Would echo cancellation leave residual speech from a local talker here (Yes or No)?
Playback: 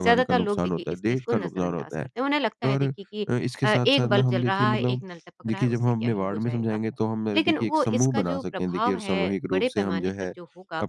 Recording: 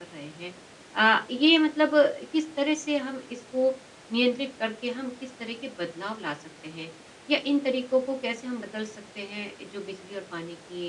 Yes